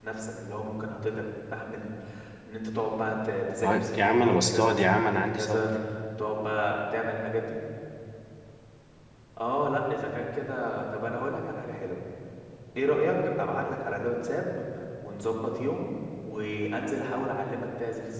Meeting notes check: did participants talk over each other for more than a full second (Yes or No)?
Yes